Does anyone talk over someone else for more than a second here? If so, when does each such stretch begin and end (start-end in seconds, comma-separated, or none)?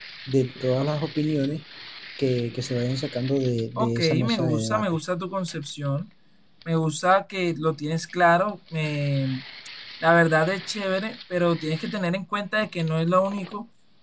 3.8-5.0